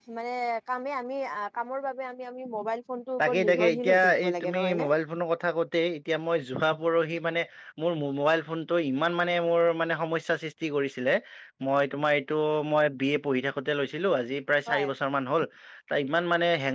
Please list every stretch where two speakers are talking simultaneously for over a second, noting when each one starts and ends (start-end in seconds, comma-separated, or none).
3.2-4.9